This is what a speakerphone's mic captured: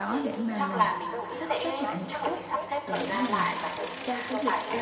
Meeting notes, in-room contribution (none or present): present